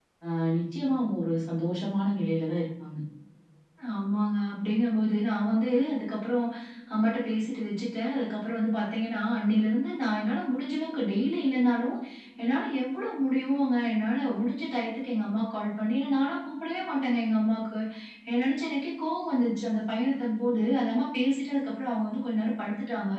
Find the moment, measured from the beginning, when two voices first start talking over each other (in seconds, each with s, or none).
none